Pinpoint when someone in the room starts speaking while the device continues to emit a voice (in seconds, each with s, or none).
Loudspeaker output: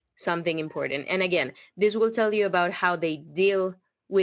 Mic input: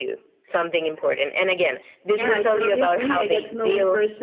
2.1 s